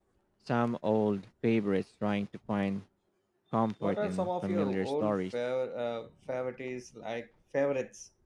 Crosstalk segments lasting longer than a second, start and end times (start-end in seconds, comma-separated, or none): 3.8-5.3